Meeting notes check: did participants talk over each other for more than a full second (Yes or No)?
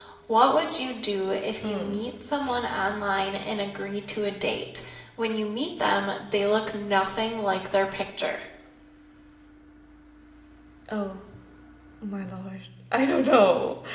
No